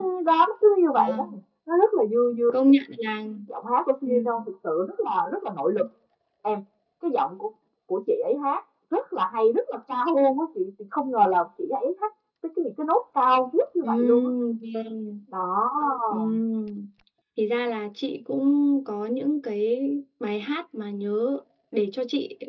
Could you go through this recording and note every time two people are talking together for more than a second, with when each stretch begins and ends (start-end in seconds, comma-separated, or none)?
none